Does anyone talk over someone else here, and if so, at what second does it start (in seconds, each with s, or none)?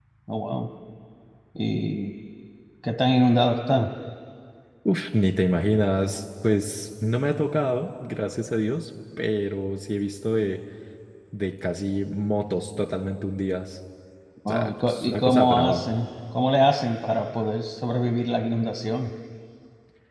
14.5 s